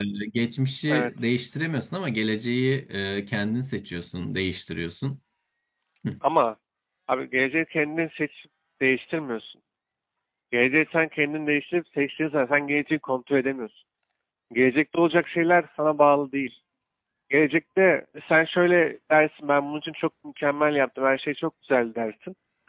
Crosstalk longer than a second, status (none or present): none